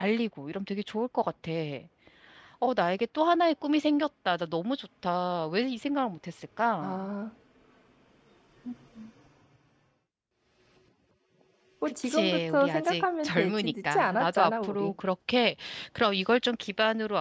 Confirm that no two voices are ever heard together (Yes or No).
No